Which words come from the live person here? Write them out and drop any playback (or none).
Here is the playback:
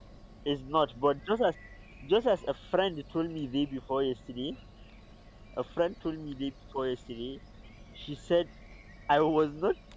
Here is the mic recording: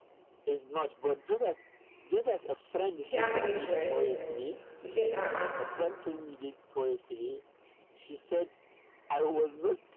Did she have any choice? They said, uh